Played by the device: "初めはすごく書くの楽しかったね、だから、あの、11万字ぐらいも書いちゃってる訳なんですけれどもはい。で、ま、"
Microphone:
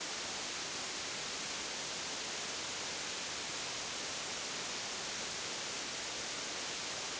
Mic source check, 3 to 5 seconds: neither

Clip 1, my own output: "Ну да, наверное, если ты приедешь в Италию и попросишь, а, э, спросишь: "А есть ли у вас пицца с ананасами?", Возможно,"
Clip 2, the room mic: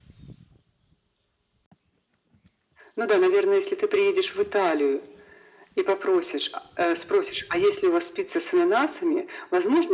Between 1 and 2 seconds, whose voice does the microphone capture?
neither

